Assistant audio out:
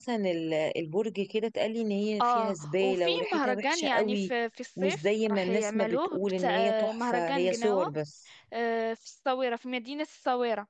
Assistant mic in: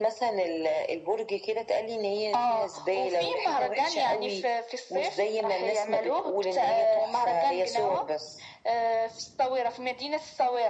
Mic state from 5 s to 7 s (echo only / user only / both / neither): echo only